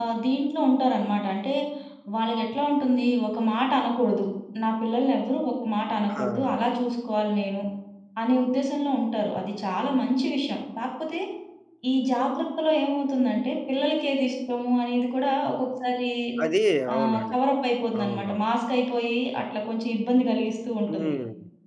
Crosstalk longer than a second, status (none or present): none